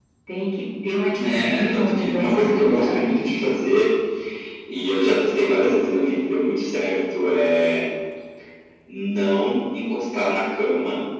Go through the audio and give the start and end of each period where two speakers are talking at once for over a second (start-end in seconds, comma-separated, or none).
1.2-3.2